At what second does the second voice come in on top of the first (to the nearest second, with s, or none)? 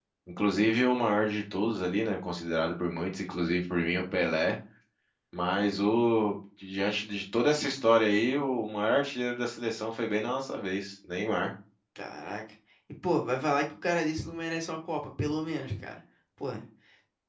none